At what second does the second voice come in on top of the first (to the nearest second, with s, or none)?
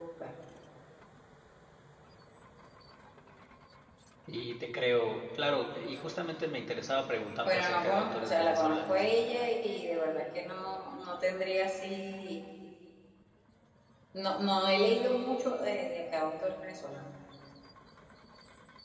7 s